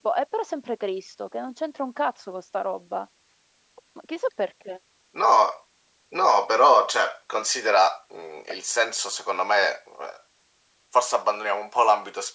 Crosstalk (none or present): none